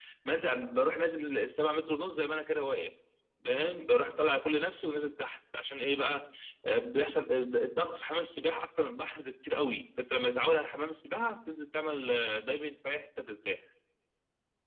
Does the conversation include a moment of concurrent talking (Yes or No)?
No